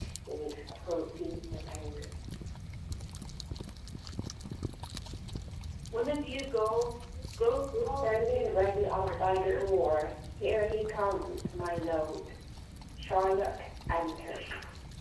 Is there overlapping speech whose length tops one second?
Yes, from 7.8 s

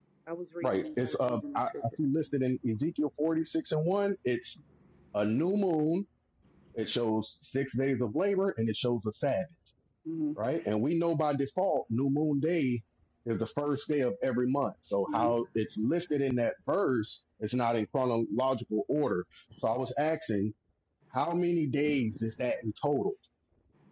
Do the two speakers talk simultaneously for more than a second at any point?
Yes, from 0.6 s

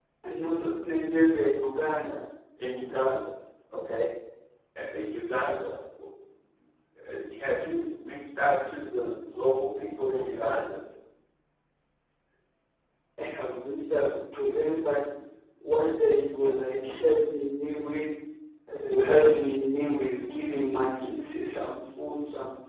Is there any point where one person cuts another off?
No

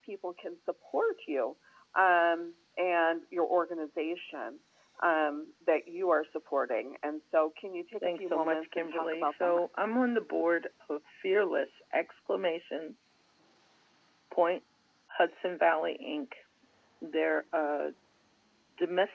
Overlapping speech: Yes, from 8.0 s

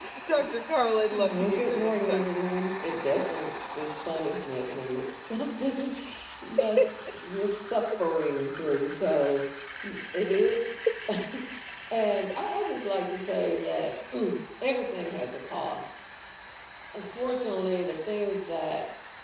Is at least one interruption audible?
Yes, from 1.1 s

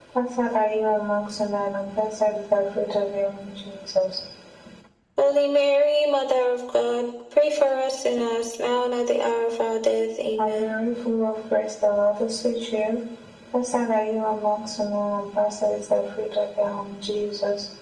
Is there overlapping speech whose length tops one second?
No

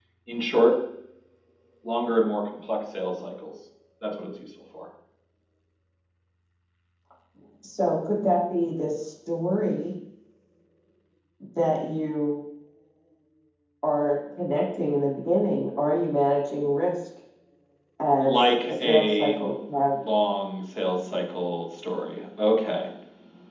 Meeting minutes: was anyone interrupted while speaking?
Yes, from 18.2 s

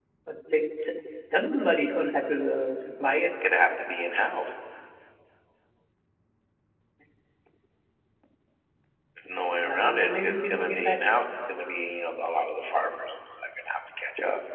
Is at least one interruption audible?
Yes, from 9.5 s

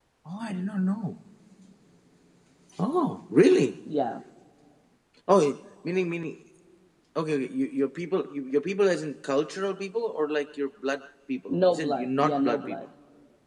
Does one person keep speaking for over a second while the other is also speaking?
Yes, from 11.5 s

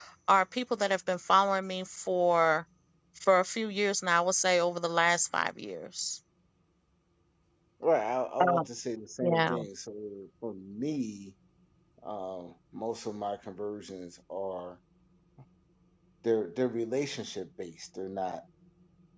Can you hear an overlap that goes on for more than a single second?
No

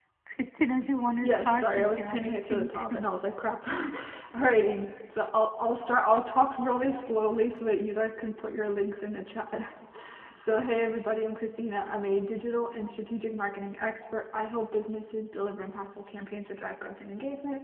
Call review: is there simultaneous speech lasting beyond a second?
Yes, from 1.2 s

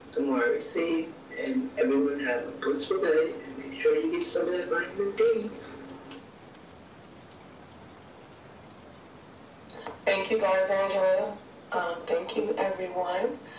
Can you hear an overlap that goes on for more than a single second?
No

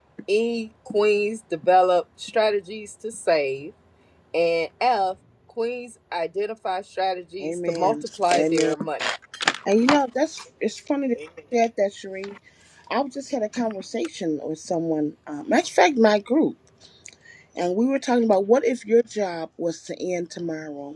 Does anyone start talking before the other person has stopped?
Yes, from 7.4 s

